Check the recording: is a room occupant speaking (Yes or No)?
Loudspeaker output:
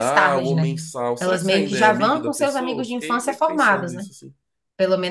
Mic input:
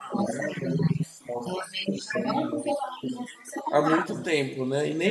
Yes